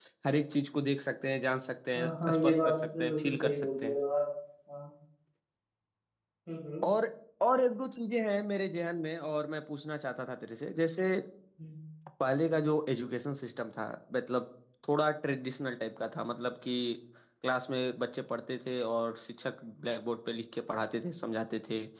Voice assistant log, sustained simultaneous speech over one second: present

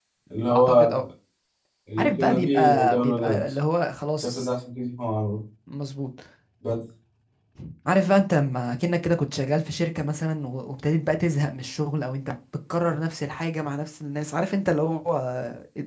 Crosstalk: present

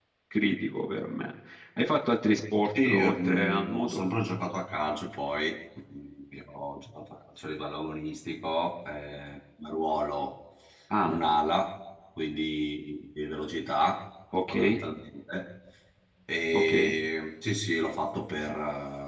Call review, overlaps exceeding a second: present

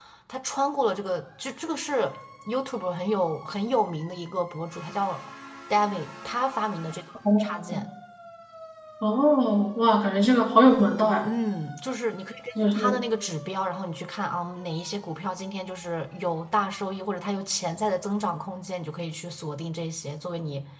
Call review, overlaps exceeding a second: none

